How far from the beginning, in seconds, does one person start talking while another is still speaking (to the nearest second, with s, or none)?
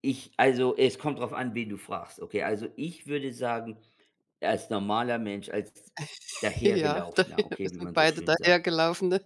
7 s